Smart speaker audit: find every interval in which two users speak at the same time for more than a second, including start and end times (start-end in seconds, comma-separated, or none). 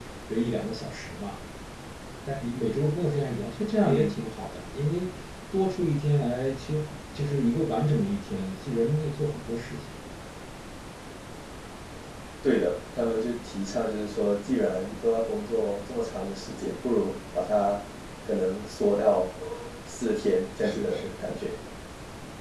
none